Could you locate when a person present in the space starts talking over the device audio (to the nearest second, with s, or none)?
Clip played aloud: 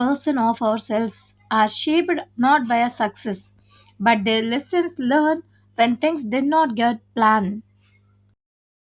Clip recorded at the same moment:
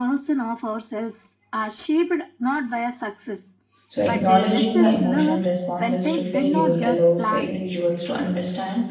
4 s